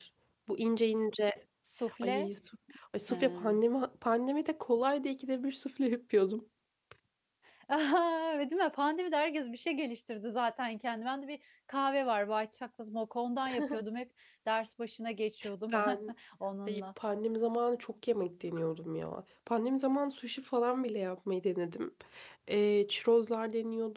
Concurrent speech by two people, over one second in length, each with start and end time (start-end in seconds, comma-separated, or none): none